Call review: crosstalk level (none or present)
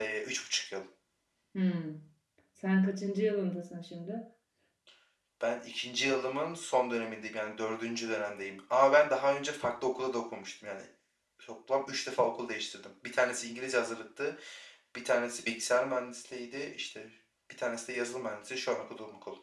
none